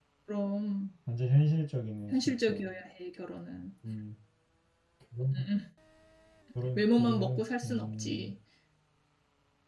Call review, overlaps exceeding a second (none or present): present